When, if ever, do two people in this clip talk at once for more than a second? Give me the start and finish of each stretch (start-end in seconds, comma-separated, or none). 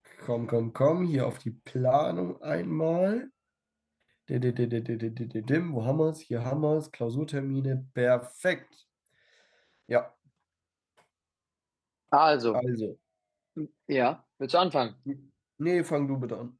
none